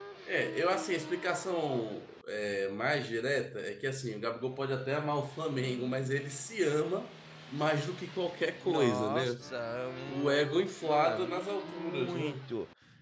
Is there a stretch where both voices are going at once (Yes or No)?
Yes